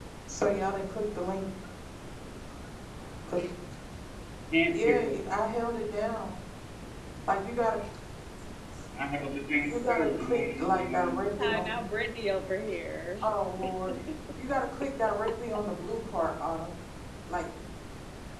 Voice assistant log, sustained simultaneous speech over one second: present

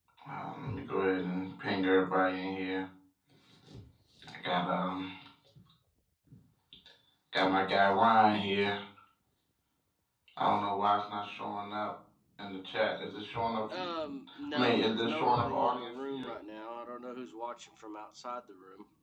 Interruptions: present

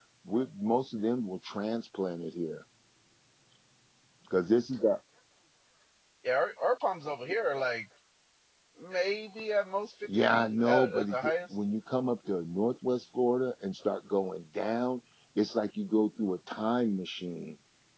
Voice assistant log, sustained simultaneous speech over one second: present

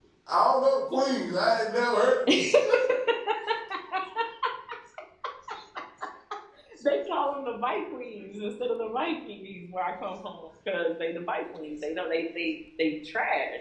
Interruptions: none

